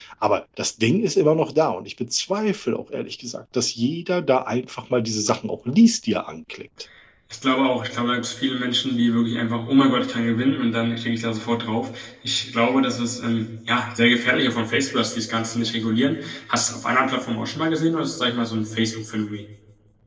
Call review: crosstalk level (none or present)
none